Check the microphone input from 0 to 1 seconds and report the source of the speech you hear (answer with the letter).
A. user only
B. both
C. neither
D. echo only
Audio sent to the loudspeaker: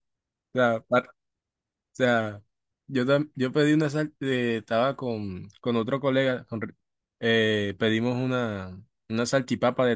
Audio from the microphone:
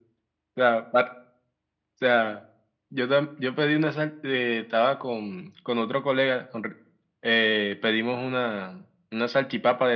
D